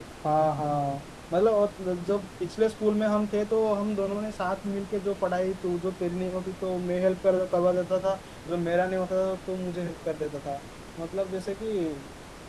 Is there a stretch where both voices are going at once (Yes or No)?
No